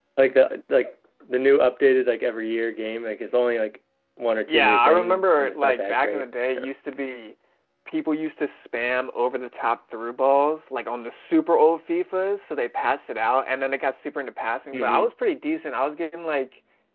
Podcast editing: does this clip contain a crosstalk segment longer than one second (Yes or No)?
Yes